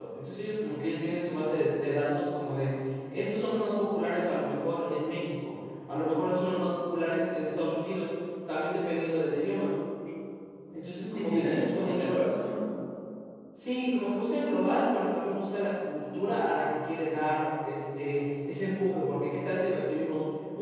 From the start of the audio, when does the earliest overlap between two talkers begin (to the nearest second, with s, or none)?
11 s